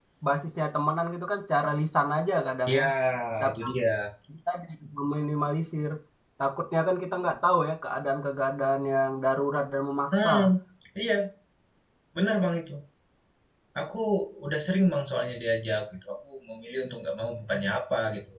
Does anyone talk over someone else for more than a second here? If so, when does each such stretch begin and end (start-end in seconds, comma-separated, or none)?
none